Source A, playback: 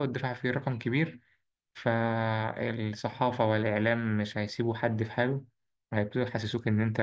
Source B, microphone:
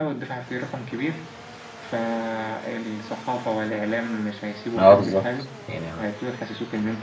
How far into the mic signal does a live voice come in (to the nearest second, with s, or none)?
5 s